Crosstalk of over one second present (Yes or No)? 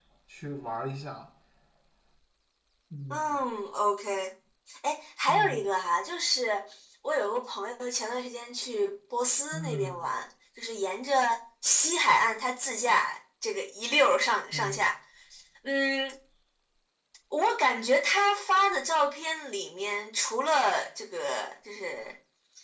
No